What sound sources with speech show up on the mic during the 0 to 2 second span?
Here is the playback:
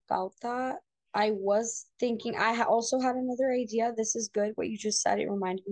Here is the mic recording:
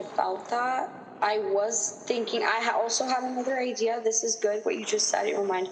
echo only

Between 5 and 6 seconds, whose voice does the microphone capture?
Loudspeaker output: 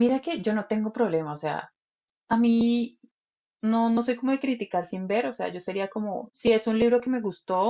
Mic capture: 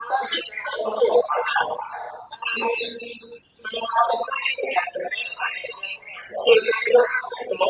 echo only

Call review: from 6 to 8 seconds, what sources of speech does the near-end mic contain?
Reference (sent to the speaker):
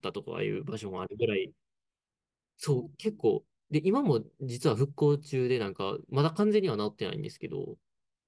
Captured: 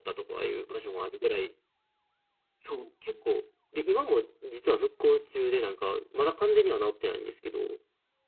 echo only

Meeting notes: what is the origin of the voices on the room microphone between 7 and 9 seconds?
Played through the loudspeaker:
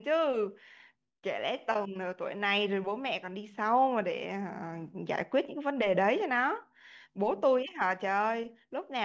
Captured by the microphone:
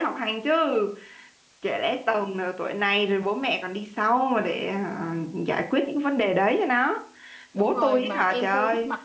both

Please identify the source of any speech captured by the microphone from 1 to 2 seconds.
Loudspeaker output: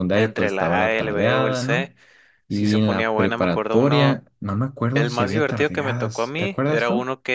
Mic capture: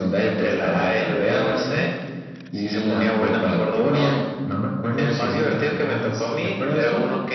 echo only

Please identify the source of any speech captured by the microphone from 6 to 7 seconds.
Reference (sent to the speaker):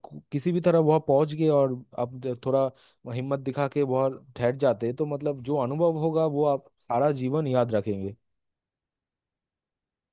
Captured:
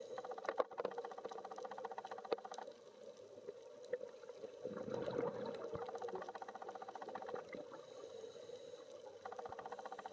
neither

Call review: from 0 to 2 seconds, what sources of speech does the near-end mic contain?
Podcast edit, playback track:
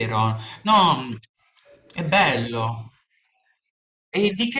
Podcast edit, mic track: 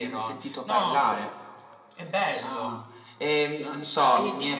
both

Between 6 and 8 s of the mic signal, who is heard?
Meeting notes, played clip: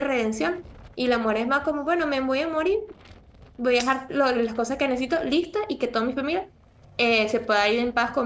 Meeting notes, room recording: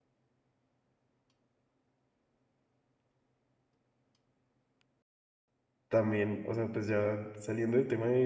user only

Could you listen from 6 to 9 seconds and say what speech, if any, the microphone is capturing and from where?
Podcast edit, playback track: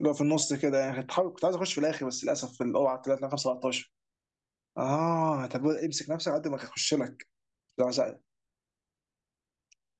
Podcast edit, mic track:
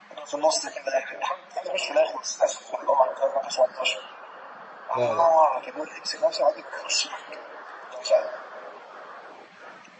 echo only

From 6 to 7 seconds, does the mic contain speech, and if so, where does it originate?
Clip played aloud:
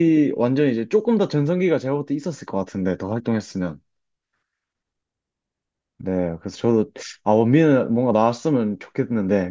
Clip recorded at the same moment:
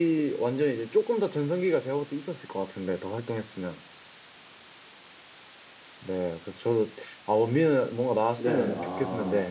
echo only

